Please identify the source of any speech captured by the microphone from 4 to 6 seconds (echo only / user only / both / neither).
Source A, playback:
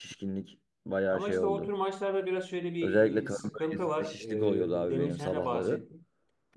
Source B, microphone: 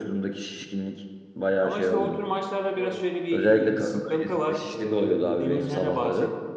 echo only